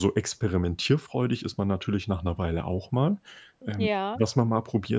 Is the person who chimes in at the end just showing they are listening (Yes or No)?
Yes